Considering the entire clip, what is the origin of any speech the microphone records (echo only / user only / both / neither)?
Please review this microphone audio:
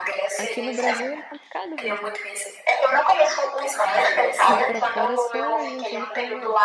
both